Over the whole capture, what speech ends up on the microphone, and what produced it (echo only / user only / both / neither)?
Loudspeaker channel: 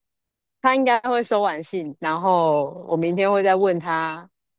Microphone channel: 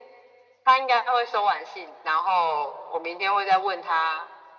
echo only